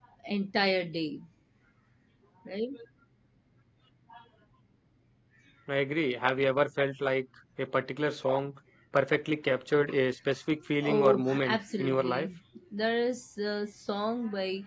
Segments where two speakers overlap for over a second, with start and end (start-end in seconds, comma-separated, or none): 10.8-12.3